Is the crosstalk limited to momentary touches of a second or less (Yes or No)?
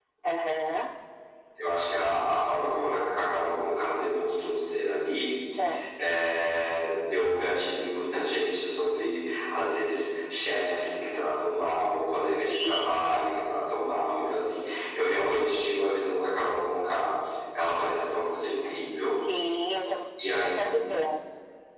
Yes